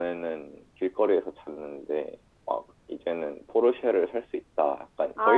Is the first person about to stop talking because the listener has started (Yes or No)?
Yes